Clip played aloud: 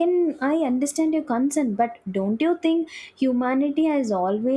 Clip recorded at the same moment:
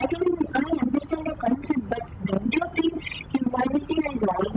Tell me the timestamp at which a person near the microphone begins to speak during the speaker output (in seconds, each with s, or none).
none